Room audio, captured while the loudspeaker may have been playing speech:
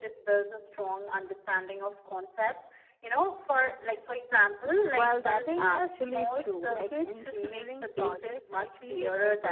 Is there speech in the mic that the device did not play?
Yes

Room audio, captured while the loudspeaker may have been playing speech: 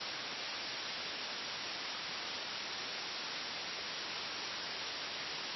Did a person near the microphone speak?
No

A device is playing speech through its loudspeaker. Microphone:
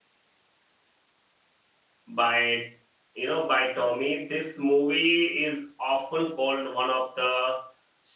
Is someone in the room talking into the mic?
Yes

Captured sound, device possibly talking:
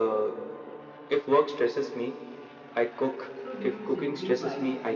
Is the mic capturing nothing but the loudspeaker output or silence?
No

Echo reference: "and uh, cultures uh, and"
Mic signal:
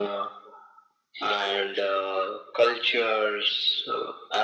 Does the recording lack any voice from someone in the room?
Yes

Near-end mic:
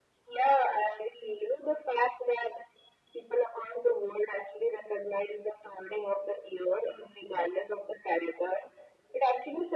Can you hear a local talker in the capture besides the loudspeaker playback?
No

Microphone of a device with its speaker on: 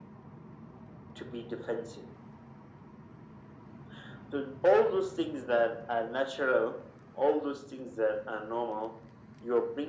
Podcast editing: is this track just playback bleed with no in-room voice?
Yes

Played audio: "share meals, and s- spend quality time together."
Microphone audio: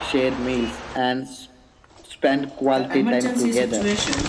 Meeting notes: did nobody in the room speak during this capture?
No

